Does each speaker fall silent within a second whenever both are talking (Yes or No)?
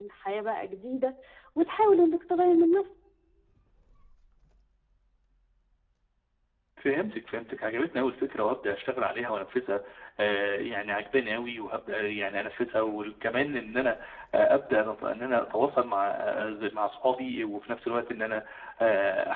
Yes